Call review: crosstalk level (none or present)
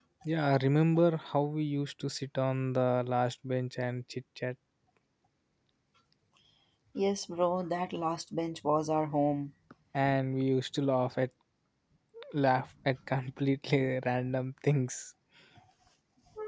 none